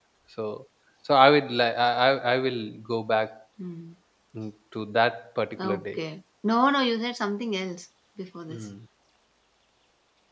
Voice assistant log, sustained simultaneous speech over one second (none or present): none